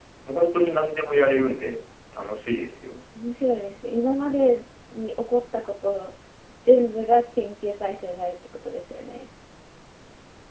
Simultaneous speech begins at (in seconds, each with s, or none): none